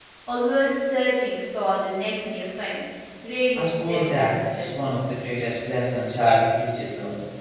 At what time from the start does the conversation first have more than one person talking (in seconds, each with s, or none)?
3.5 s